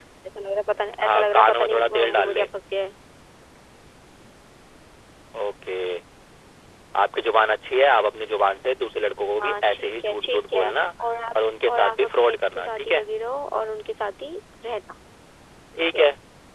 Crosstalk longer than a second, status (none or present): present